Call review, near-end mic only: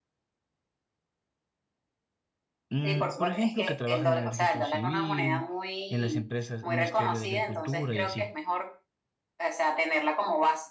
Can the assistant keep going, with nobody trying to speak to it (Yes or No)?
No